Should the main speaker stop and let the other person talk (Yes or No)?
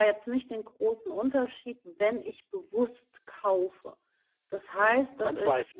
Yes